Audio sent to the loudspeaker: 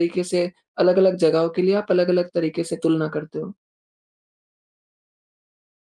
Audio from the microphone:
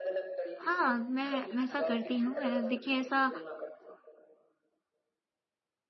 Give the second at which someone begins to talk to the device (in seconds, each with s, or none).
0.6 s